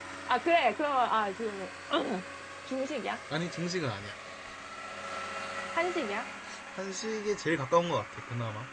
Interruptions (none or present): none